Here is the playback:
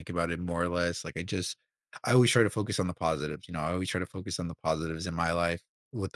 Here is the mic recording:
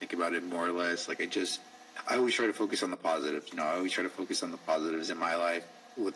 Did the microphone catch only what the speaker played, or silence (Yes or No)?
Yes